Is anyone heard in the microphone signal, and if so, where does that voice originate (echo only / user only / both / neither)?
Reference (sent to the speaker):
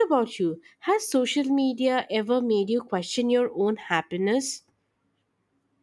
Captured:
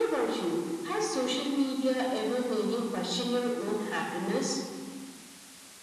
echo only